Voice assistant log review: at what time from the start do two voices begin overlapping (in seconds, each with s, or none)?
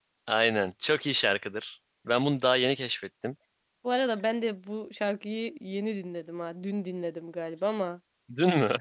none